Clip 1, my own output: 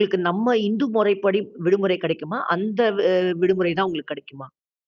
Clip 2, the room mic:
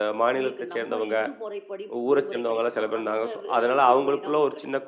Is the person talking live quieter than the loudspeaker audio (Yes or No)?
No